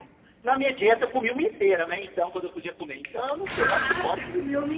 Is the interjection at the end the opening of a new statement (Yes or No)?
Yes